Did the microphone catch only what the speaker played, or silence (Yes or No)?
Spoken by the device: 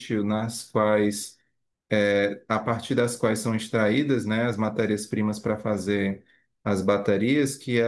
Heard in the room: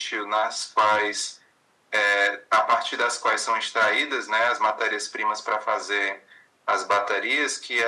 Yes